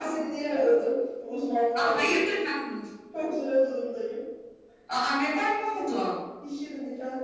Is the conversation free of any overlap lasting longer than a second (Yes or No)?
Yes